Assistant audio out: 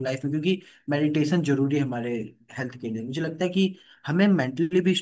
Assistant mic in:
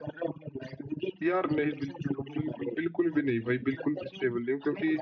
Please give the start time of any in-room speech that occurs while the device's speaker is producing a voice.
1.2 s

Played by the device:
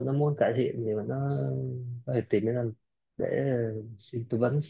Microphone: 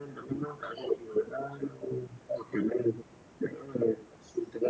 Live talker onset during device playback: none

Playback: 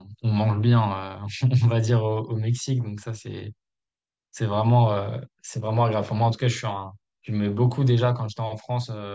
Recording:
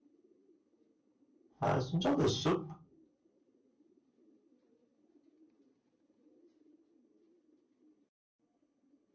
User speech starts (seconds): 1.6 s

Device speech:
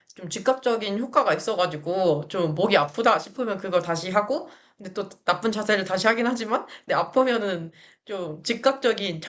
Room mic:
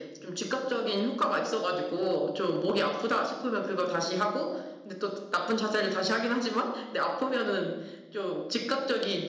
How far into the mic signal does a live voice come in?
none

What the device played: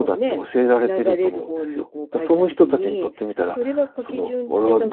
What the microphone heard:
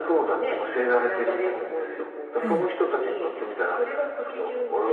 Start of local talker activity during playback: 2.4 s

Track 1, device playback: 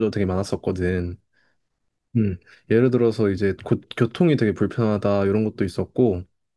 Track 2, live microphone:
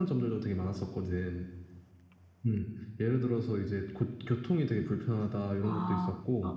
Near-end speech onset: 5.6 s

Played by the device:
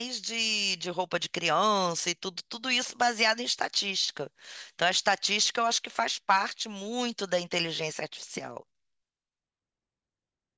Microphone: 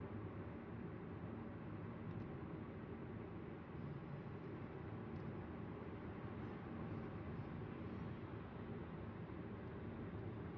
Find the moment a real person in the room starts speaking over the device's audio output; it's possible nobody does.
none

